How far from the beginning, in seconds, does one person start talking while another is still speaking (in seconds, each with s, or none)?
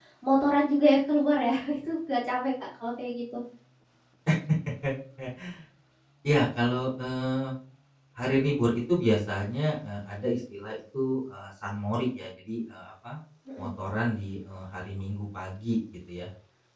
none